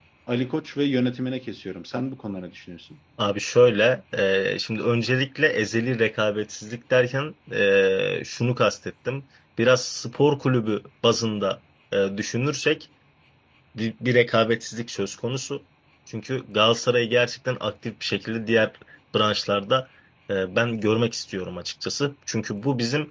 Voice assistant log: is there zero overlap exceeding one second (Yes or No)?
Yes